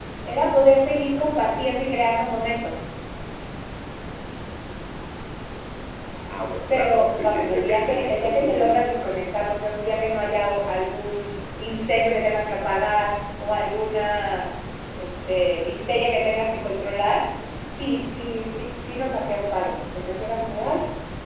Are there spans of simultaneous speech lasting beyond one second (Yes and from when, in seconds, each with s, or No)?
Yes, from 6.7 s